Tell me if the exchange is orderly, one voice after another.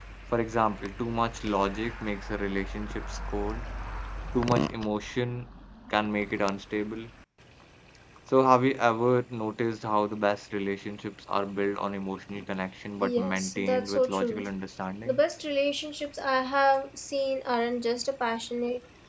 No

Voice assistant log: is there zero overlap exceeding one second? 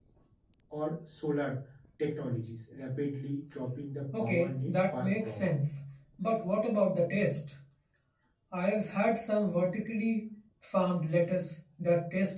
No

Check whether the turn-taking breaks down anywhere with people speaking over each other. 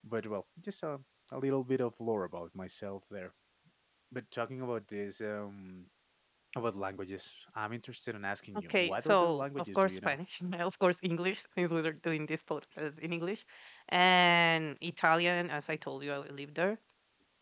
Yes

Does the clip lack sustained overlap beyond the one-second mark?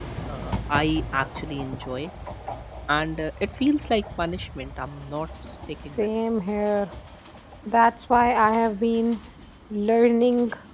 Yes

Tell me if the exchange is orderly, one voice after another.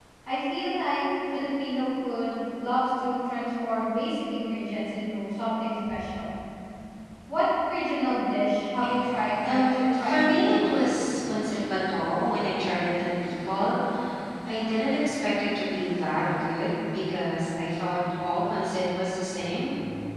No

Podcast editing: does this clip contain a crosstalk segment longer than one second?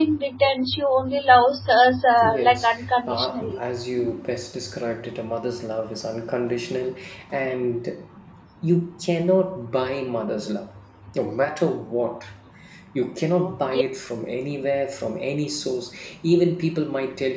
Yes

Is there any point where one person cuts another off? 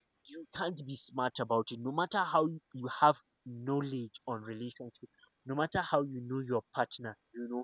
No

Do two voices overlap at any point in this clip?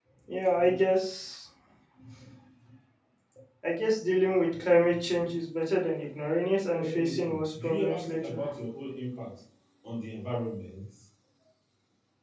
Yes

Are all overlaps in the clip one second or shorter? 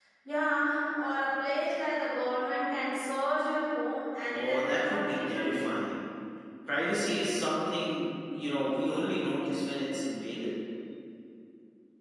No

